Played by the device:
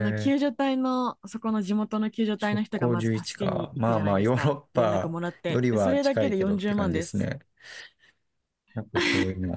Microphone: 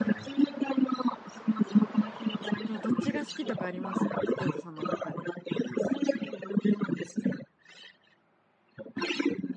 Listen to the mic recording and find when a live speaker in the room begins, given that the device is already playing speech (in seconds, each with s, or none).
2.6 s